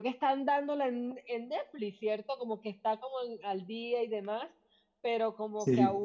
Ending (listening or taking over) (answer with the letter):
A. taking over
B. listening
B